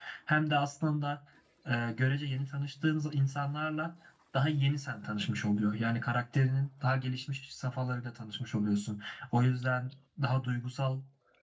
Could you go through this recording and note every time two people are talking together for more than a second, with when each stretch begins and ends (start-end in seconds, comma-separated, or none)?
none